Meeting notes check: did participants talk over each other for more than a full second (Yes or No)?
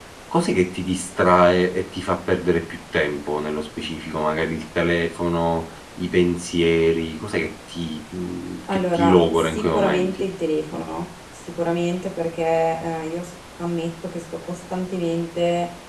Yes